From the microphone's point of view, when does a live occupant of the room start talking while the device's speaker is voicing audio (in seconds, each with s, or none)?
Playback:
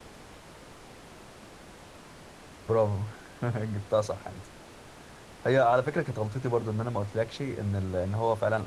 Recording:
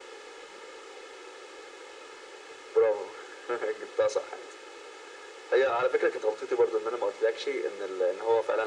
none